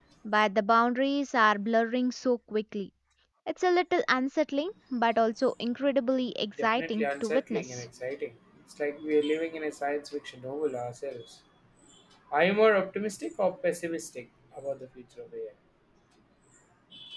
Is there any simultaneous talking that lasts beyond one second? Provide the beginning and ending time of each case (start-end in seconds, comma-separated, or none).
6.6-7.8